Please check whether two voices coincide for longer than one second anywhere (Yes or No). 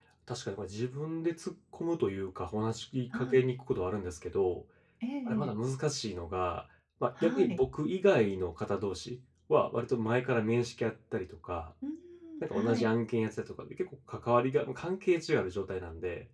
No